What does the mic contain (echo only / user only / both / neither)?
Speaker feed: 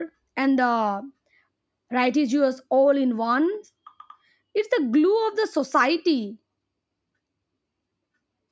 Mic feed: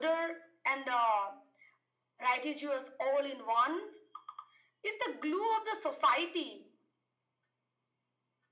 echo only